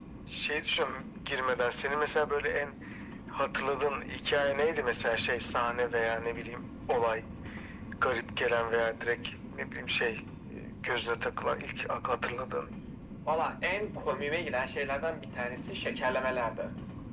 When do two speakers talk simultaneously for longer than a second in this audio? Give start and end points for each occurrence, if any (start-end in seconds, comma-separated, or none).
none